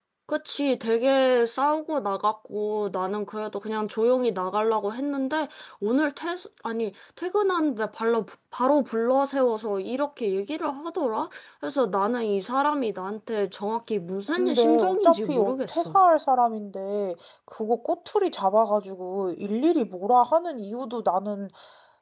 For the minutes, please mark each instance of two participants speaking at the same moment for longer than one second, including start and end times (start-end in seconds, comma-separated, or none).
14.4-16.0